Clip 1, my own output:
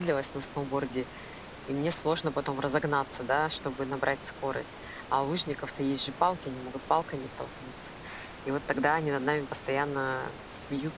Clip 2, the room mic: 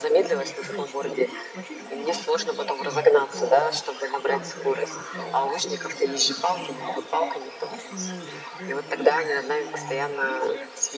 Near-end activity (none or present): present